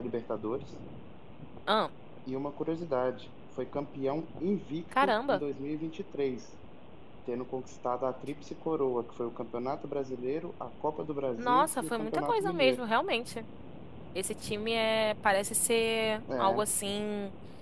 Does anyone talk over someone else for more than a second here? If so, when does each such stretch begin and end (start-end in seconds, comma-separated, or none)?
11.4-12.8